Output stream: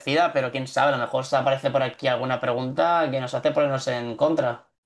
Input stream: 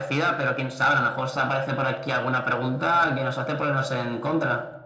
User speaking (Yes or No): No